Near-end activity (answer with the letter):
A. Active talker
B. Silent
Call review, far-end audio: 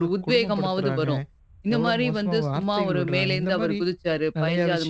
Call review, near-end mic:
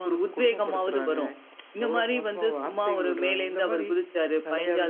B